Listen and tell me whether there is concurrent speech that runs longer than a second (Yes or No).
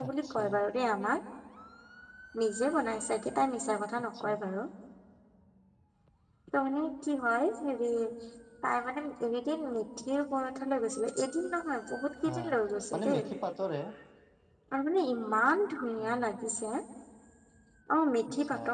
No